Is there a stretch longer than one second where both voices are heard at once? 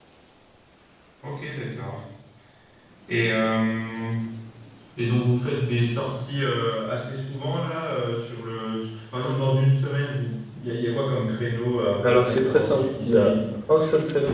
Yes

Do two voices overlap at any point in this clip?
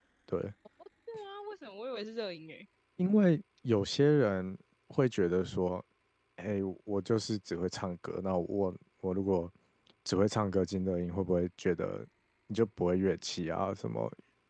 No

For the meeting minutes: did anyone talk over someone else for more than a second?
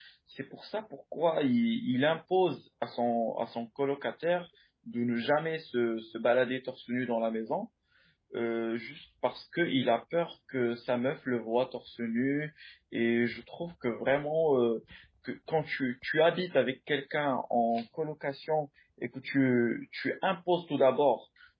No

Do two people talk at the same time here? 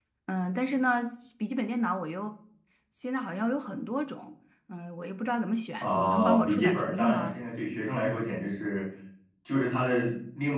Yes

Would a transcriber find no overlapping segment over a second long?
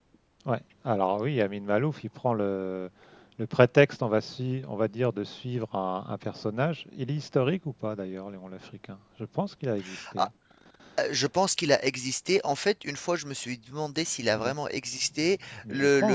Yes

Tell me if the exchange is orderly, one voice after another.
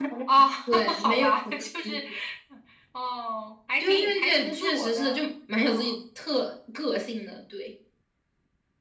No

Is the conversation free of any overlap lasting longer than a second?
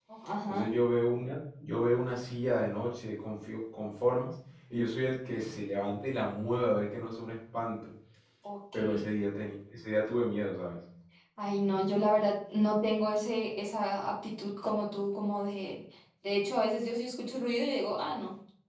Yes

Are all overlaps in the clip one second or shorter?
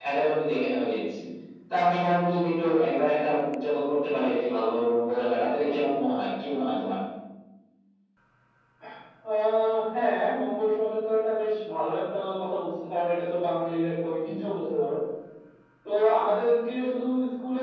Yes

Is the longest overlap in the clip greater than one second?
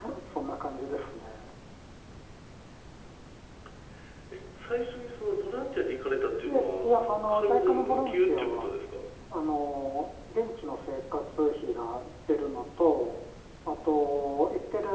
Yes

